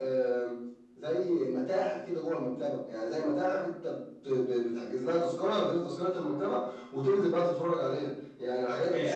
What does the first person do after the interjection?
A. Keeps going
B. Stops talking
B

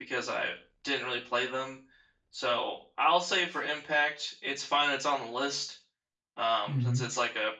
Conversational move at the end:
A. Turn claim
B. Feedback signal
B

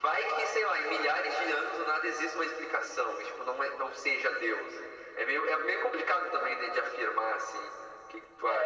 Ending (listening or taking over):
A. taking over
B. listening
A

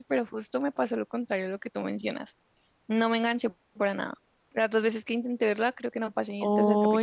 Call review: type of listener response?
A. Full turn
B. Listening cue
A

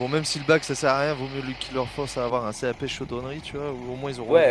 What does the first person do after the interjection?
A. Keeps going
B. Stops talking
B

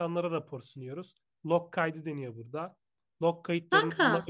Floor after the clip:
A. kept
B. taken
A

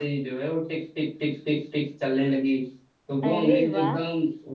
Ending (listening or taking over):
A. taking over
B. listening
B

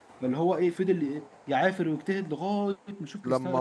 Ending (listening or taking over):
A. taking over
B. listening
B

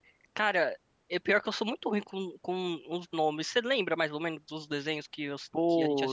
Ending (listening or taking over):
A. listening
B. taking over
B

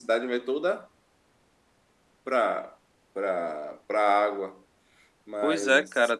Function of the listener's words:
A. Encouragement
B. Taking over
B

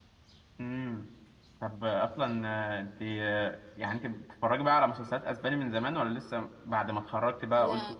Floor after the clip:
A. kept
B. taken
A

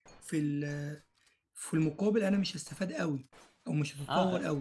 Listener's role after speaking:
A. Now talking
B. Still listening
A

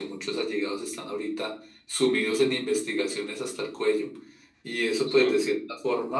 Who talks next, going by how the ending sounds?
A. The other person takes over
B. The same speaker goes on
B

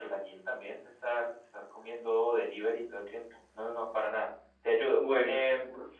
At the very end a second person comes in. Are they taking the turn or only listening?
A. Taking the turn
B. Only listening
A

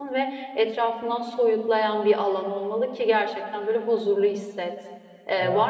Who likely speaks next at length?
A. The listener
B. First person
B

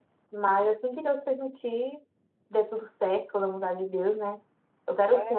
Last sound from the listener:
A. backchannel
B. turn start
B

